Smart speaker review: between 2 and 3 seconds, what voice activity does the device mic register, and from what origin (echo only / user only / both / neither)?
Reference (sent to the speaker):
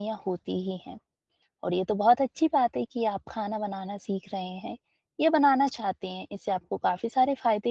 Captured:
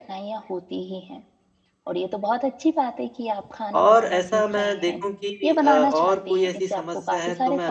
echo only